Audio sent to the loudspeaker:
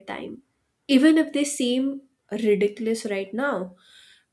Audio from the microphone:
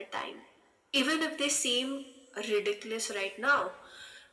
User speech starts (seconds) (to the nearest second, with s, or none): none